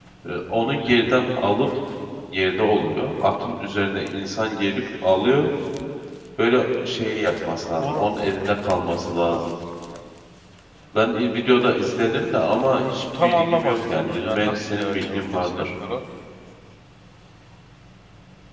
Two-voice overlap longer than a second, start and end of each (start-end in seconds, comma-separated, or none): 13.2-15.7